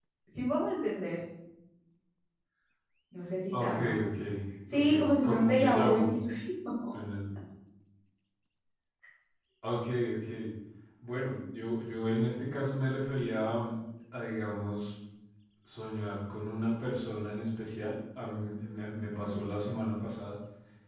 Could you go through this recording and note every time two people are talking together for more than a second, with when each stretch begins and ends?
4.7-6.2

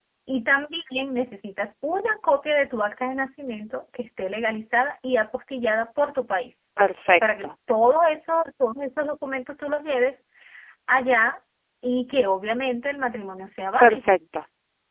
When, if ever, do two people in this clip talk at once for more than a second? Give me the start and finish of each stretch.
none

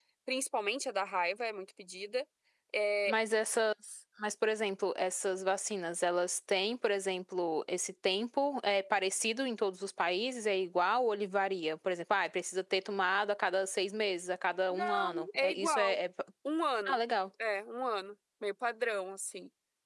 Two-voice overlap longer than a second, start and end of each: 14.7-16.0

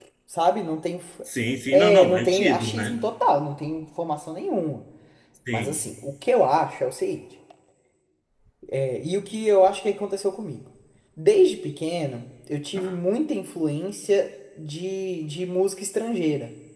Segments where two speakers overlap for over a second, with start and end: 1.7-3.0

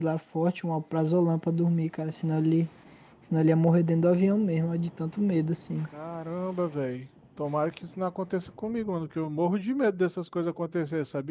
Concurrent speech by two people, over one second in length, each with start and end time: none

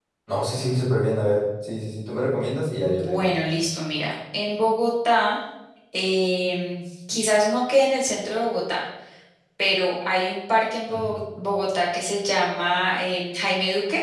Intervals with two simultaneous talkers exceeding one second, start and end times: none

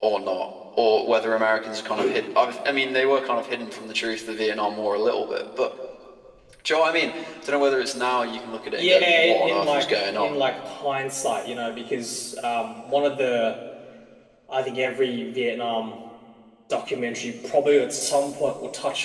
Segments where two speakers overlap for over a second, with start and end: 8.8-10.3

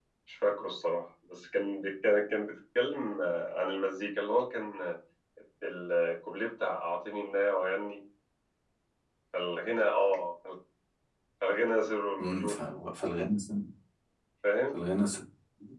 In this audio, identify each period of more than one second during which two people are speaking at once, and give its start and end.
none

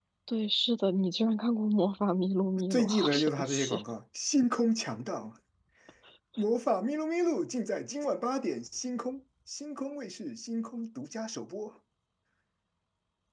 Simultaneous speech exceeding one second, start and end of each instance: 2.6-3.8

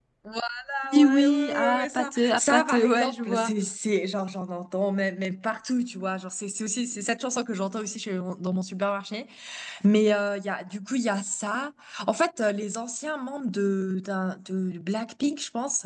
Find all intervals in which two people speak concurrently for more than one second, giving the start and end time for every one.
1.0-3.5

